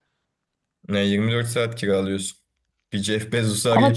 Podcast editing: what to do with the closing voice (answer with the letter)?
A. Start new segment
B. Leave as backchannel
B